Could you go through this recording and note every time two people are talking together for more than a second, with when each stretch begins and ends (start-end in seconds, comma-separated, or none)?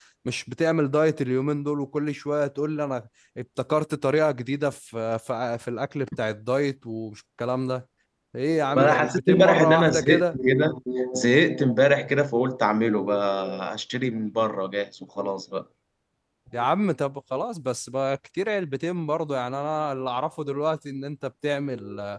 8.8-10.4